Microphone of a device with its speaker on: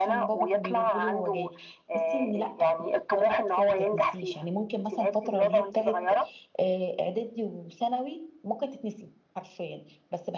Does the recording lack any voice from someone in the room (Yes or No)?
No